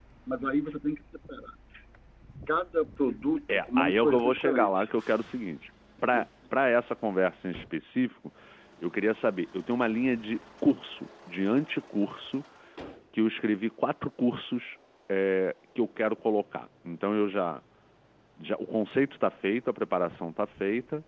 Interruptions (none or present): present